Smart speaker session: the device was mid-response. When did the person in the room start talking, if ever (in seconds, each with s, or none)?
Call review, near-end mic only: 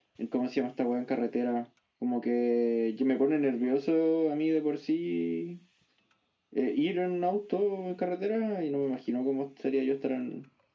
none